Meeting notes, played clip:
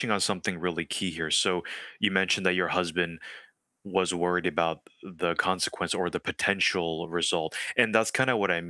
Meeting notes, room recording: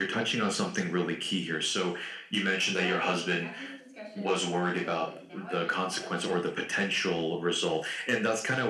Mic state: both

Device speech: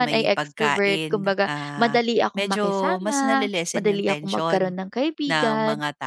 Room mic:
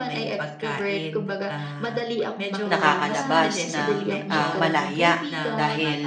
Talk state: both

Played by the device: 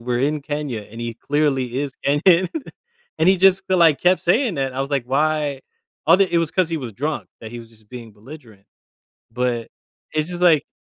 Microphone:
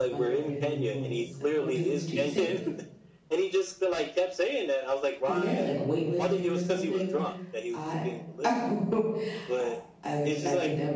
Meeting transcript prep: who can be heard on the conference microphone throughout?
both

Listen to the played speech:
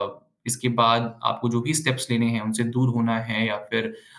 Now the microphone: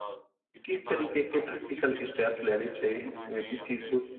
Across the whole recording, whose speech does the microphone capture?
both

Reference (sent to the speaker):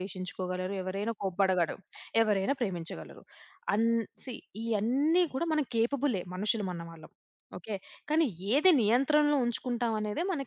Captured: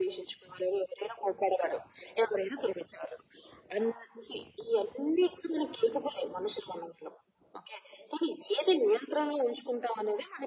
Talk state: echo only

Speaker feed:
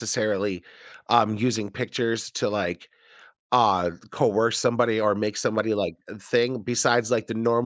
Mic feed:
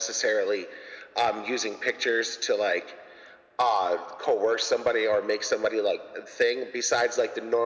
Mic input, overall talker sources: echo only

